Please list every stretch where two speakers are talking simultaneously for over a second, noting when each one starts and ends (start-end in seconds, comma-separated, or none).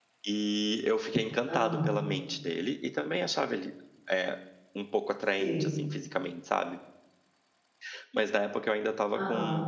none